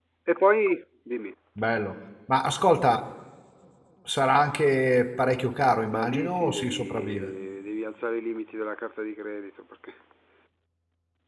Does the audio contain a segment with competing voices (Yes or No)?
Yes